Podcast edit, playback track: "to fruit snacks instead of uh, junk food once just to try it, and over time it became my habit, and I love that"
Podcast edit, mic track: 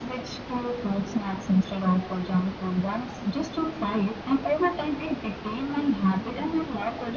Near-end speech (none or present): none